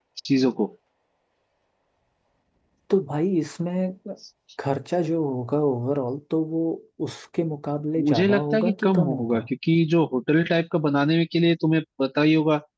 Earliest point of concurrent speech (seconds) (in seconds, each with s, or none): 8.0 s